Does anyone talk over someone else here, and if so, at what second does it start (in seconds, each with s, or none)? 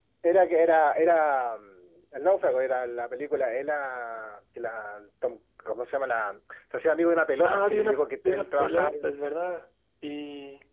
7.4 s